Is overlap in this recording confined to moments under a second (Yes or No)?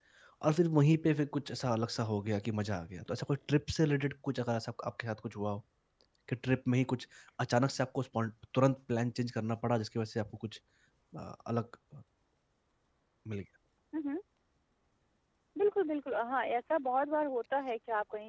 Yes